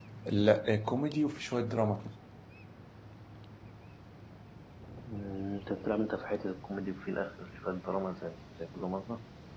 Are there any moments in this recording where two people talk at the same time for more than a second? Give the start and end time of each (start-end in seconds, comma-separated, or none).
none